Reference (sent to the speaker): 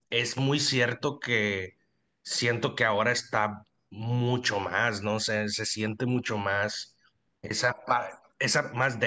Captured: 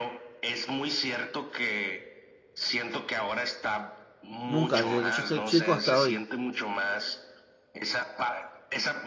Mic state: both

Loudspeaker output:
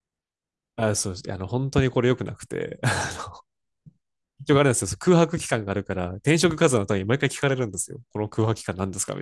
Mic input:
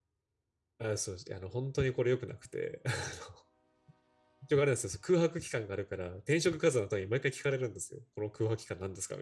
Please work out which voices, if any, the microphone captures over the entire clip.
echo only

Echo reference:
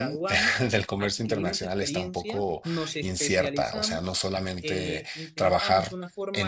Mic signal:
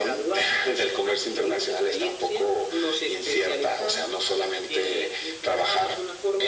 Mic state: echo only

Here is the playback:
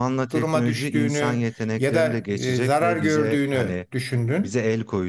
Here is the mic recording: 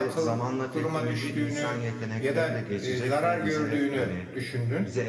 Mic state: echo only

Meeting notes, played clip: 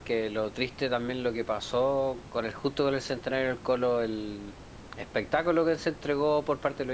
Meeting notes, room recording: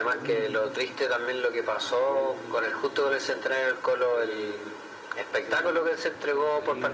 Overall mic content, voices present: both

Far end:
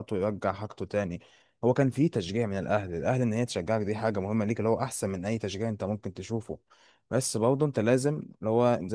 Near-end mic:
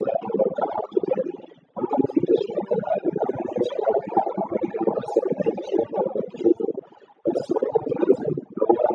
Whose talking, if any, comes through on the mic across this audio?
echo only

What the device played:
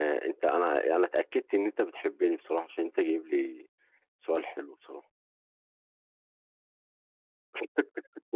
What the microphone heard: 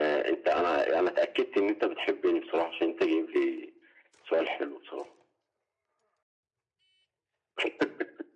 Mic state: echo only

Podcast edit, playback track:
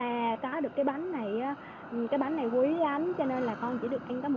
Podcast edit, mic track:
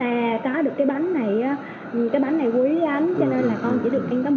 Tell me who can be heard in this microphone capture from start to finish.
both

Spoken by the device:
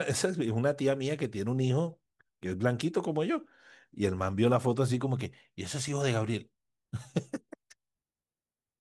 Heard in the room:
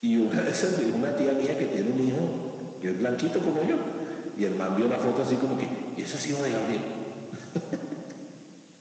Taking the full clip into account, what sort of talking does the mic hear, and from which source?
echo only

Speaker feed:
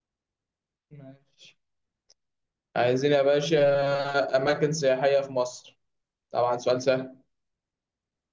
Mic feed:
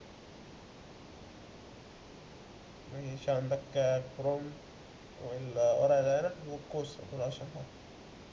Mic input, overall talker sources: user only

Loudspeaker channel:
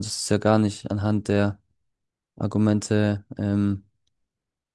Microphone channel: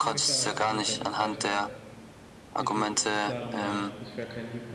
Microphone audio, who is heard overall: both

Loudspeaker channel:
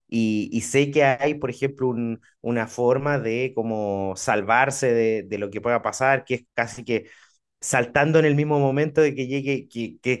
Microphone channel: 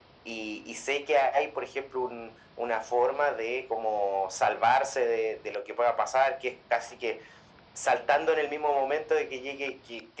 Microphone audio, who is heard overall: echo only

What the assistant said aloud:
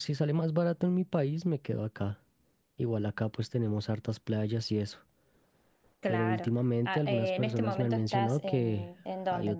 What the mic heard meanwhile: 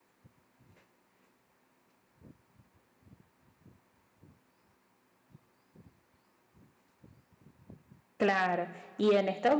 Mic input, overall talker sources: user only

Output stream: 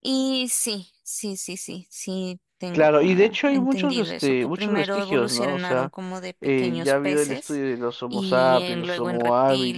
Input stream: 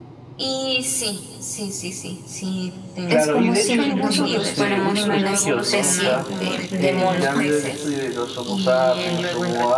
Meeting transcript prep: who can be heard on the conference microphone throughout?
both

